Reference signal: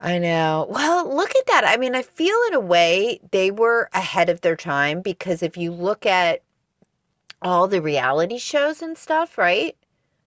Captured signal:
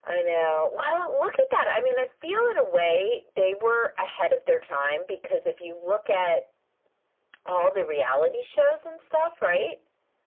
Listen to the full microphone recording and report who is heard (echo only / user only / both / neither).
echo only